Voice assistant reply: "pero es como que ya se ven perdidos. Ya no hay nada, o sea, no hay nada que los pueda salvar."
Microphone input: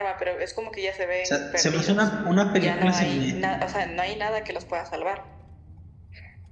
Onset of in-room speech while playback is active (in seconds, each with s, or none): 1.2 s